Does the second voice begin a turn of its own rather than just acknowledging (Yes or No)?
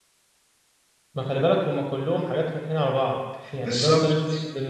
No